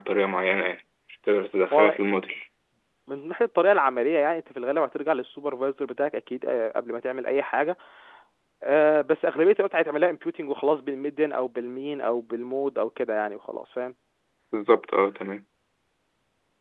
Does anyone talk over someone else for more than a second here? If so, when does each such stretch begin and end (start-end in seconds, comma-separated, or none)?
none